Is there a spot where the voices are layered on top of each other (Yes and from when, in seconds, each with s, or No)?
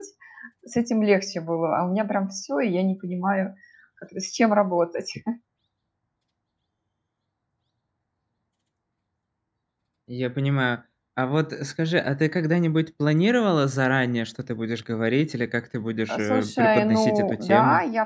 Yes, from 16.1 s